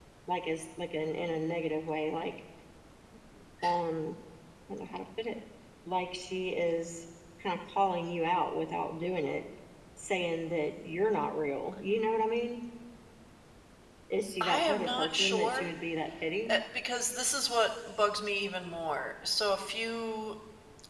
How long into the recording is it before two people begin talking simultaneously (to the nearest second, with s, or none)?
14 s